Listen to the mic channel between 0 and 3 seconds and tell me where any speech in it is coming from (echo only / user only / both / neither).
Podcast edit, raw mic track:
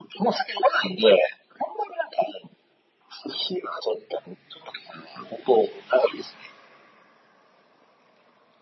echo only